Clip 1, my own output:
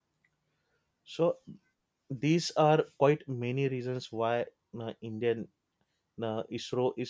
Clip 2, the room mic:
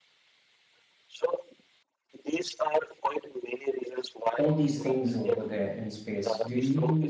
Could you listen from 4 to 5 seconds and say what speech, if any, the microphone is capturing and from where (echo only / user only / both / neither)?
both